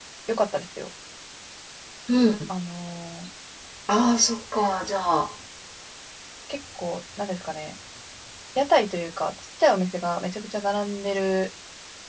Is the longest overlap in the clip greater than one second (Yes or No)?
No